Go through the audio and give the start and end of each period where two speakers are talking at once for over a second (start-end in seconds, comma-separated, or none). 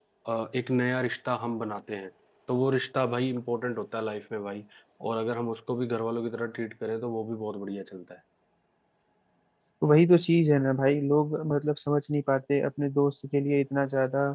none